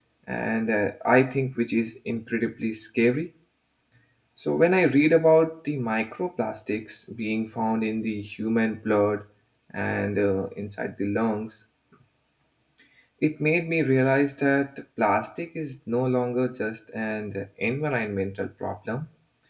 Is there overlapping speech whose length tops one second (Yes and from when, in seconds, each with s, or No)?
No